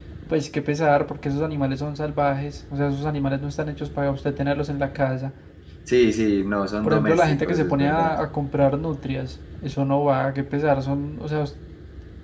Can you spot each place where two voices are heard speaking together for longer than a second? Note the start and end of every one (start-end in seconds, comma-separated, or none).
6.8-8.1